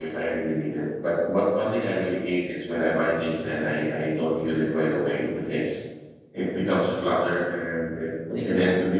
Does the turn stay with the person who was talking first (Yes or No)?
Yes